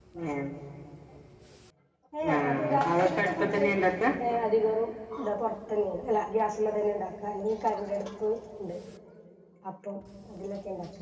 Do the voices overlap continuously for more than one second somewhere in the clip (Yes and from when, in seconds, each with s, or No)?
Yes, from 2.4 s